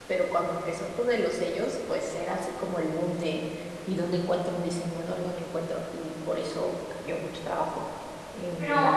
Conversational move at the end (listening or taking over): taking over